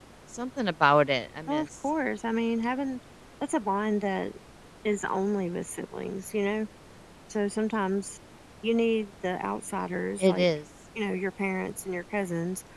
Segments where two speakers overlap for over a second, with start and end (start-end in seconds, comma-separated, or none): none